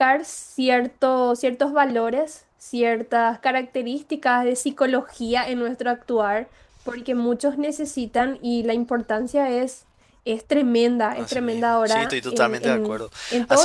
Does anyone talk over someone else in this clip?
Yes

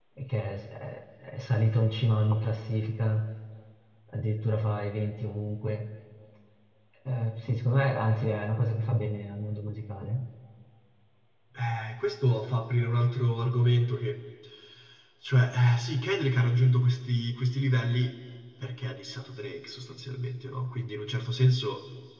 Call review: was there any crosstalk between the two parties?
No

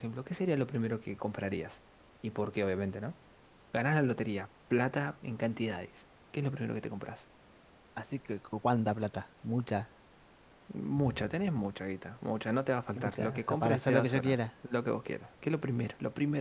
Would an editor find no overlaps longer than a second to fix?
No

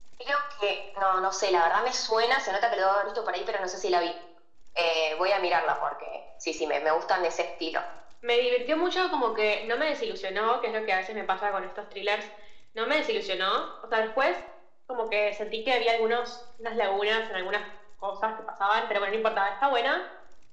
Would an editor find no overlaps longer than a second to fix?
Yes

